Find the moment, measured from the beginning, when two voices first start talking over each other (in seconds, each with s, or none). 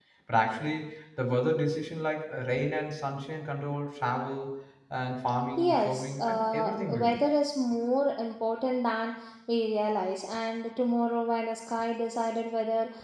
5.6 s